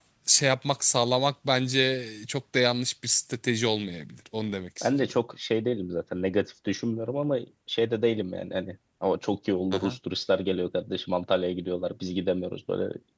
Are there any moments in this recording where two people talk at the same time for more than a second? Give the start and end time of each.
none

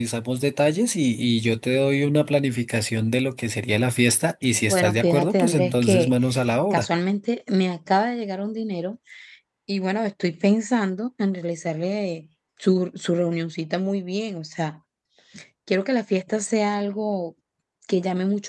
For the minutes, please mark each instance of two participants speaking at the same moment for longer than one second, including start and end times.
4.7-6.1

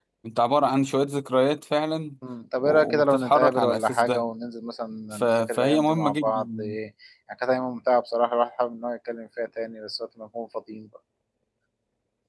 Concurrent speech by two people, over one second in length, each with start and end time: 2.6-4.2, 5.1-6.8

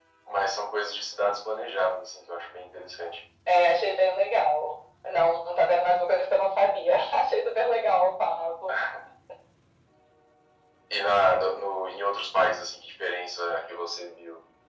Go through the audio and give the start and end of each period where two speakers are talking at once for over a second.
none

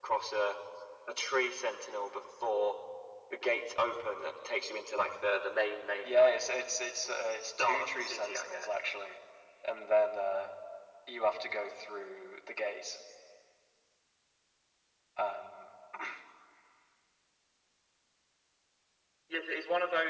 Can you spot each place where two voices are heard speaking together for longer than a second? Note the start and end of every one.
7.4-8.7

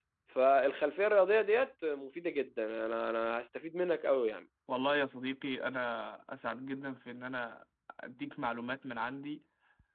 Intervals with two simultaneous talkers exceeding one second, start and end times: none

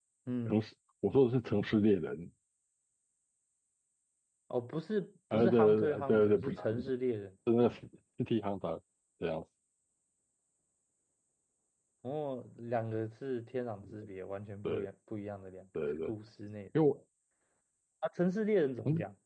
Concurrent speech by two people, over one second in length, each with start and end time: 5.3-6.7

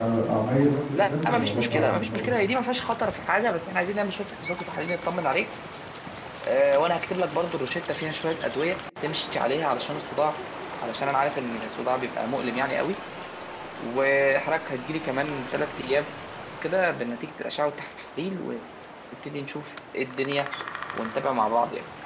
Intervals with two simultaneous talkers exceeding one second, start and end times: 0.9-2.3

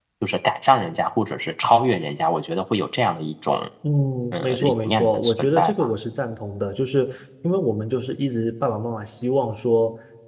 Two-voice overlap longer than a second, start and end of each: 4.4-5.9

